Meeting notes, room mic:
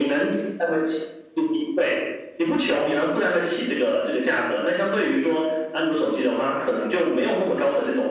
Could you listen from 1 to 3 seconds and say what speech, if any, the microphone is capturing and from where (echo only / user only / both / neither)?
echo only